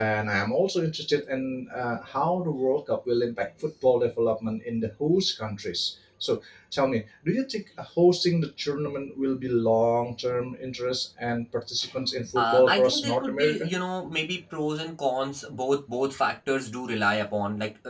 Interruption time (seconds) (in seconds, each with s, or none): 12.4 s